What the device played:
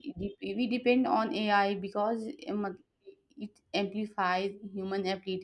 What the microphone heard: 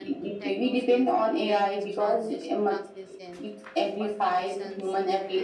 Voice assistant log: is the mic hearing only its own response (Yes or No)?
No